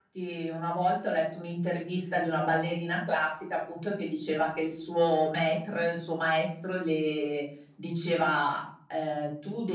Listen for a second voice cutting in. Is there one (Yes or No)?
No